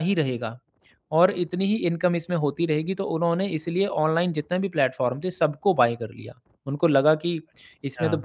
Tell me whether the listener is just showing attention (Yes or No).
Yes